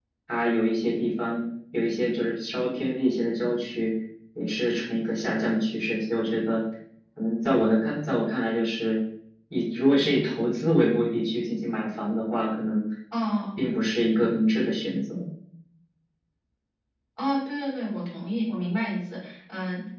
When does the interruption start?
none

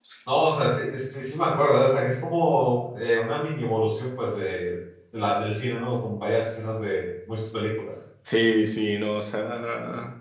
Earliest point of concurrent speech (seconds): none

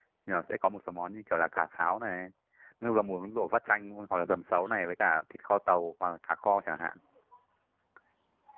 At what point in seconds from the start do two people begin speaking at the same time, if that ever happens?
none

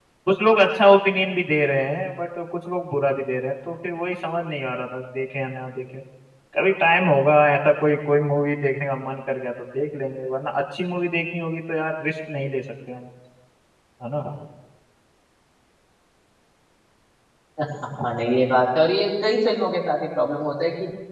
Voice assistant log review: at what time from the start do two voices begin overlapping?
none

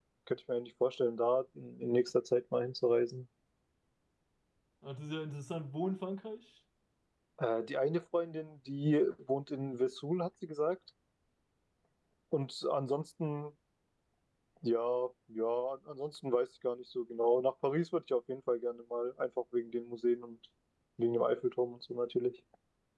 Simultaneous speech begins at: none

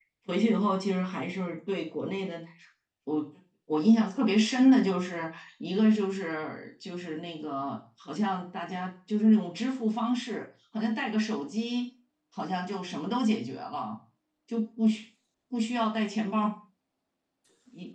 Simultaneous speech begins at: none

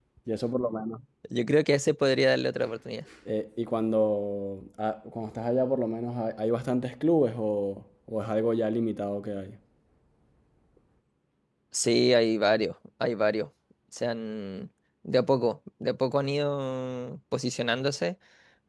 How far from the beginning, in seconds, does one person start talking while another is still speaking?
none

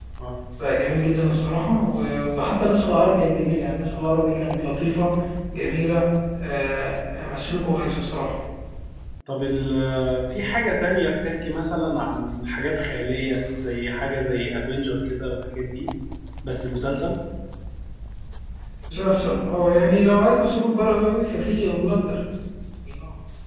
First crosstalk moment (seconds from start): none

